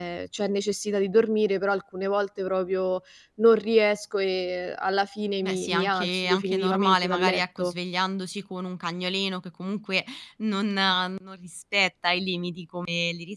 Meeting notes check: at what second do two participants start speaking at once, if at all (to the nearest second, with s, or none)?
5 s